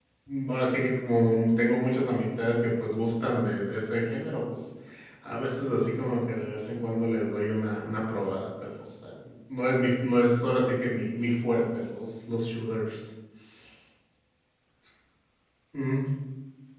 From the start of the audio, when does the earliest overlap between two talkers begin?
none

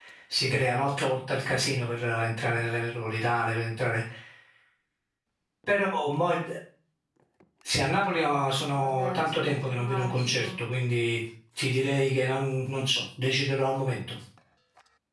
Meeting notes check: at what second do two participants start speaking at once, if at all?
8.8 s

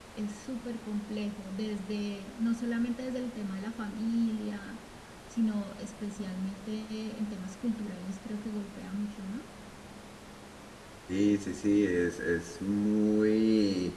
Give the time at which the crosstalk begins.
none

